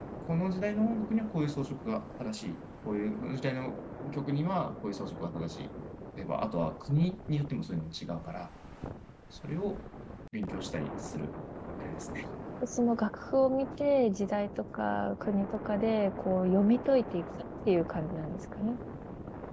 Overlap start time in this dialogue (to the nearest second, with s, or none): none